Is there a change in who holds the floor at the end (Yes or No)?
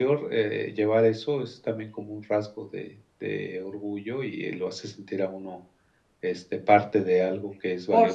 Yes